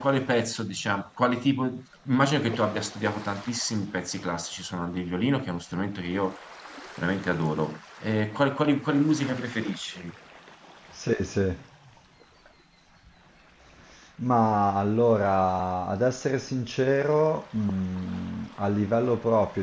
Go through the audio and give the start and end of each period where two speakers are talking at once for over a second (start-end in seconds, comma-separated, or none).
none